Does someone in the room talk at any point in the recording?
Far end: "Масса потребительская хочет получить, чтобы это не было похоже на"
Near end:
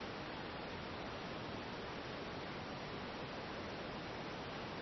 No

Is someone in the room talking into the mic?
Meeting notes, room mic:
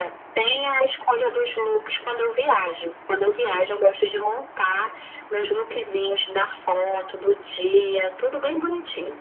No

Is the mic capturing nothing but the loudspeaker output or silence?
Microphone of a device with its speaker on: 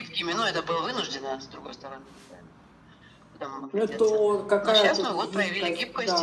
No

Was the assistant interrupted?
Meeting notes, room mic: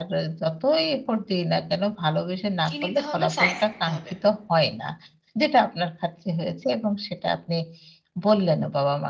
Yes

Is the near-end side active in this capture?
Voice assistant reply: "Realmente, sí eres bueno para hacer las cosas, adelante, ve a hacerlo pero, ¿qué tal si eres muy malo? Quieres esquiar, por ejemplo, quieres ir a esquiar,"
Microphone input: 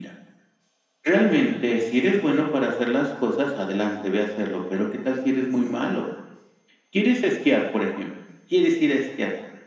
No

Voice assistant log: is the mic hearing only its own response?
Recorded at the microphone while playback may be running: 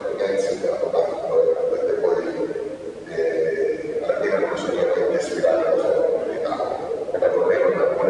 Yes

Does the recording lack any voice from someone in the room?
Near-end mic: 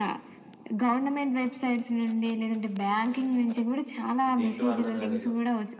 No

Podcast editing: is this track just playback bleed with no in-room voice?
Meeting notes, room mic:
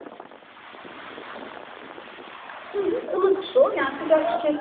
No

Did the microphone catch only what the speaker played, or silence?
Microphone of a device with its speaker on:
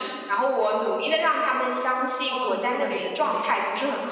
No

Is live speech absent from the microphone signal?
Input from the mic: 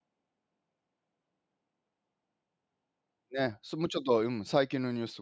No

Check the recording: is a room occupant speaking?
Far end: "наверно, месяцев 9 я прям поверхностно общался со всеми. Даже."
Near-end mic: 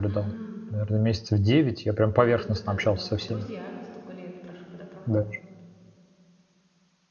Yes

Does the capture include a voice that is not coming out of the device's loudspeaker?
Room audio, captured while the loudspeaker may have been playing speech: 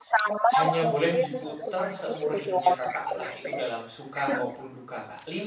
Yes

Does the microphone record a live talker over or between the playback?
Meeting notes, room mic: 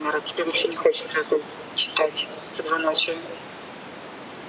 No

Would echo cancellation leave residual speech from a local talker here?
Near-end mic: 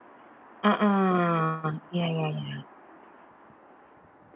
Yes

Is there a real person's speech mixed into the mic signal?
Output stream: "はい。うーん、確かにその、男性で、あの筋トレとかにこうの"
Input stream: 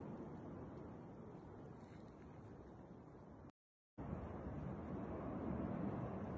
No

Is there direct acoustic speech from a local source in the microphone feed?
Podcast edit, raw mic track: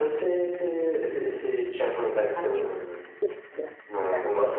Yes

